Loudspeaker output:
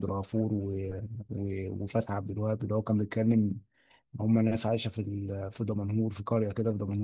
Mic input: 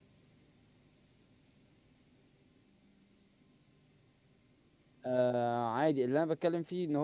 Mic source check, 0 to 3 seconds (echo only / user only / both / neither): neither